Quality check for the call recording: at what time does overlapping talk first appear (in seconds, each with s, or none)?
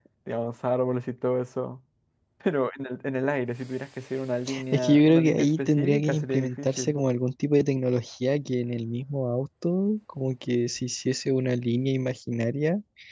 4.5 s